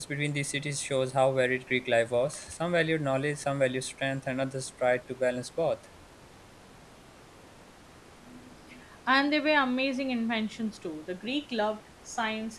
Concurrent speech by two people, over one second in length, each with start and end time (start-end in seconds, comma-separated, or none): none